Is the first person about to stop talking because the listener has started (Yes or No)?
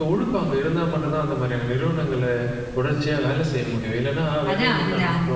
Yes